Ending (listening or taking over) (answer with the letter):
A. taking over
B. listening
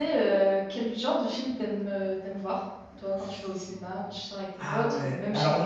A